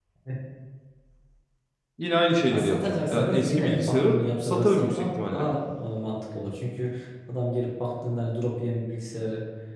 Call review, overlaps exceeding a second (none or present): present